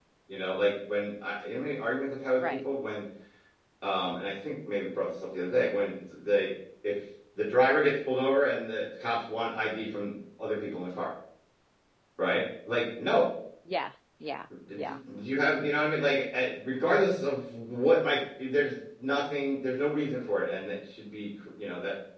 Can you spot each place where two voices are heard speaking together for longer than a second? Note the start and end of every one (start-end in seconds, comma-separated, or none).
none